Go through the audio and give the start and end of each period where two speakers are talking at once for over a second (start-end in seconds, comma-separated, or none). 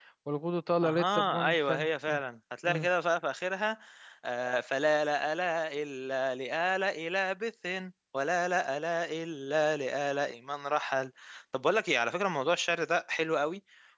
0.8-2.2